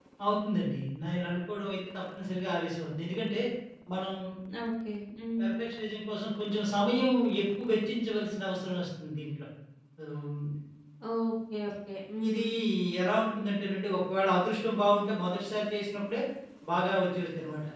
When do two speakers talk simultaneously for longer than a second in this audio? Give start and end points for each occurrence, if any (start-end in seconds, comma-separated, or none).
none